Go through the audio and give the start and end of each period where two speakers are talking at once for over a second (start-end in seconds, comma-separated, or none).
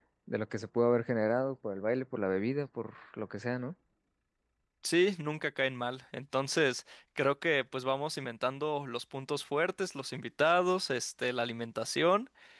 none